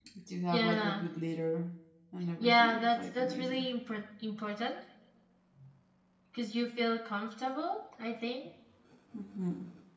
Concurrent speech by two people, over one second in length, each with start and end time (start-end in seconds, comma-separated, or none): 2.4-3.7